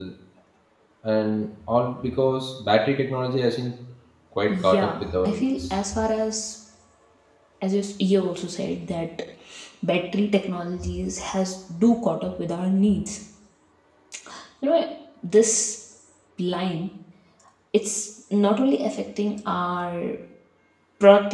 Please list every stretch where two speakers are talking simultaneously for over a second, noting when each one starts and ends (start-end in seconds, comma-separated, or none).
4.5-5.8